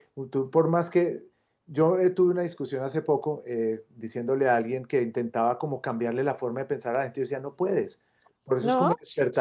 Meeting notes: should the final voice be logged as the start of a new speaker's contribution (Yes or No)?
No